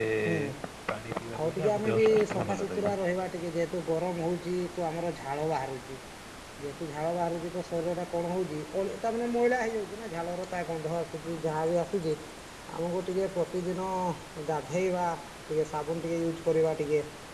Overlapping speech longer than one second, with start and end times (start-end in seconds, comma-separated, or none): 1.4-2.9